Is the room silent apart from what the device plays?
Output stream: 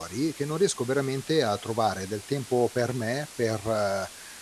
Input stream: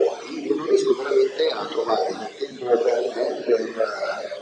Yes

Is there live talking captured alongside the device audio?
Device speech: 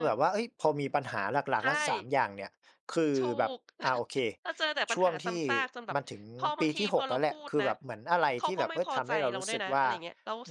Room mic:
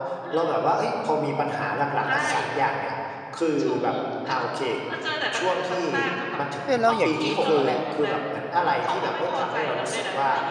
Yes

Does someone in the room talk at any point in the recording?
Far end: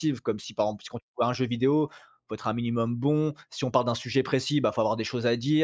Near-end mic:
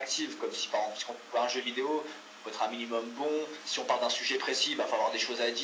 No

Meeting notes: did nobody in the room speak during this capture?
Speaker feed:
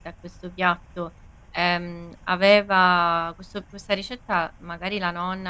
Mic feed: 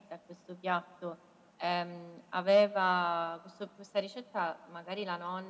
Yes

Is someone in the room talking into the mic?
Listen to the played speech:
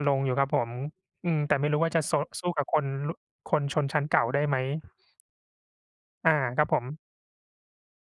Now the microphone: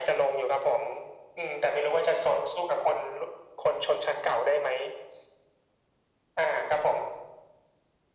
No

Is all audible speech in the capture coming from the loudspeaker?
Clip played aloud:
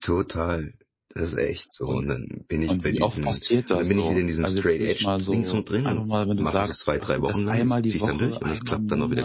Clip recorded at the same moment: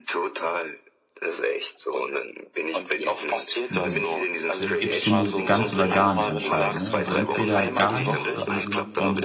No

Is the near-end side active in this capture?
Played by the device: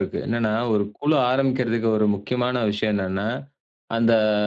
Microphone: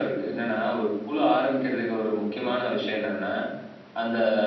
No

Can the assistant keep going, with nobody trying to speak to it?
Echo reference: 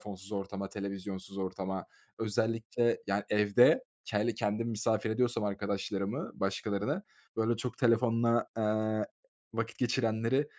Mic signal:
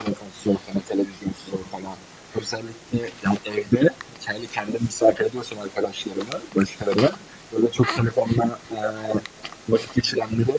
Yes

